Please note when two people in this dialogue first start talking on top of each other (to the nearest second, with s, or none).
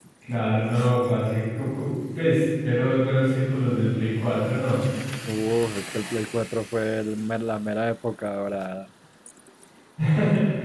none